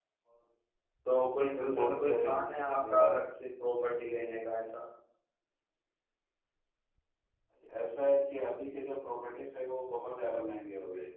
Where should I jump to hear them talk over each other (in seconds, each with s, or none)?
1.5 s